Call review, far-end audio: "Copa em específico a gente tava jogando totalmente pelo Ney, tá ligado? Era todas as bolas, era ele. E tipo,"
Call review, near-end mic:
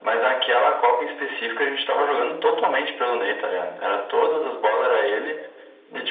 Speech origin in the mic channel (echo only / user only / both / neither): echo only